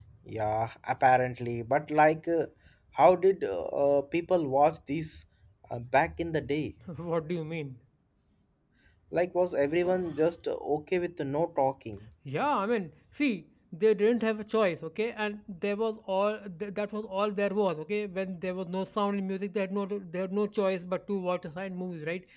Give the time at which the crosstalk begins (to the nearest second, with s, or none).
none